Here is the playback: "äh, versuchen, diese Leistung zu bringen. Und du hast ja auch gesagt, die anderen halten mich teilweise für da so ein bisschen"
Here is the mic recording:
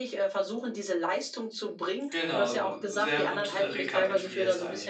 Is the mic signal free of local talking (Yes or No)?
No